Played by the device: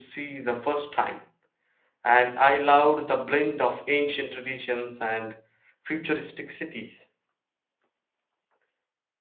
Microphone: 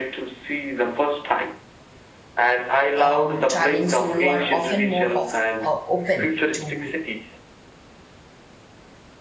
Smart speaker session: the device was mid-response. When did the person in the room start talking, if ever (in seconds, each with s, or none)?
3.0 s